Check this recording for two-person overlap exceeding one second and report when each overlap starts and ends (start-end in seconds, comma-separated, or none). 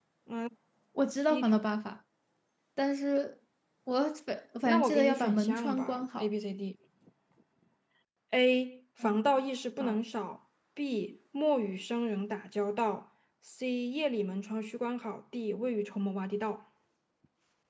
4.6-6.3